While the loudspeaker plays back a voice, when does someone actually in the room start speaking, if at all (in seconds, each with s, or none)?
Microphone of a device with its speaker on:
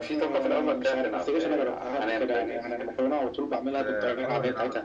3.8 s